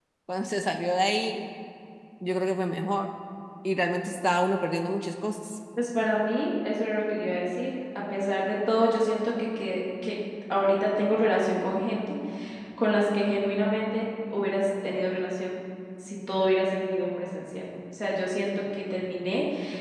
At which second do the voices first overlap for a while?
none

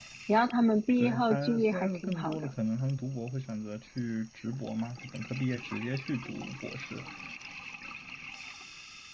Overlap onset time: 1.0 s

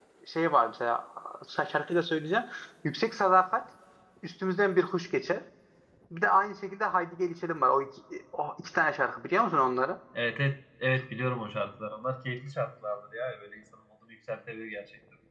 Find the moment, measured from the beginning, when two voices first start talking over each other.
none

